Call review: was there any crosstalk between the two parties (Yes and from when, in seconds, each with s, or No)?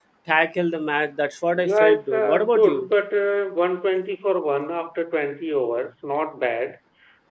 Yes, from 1.6 s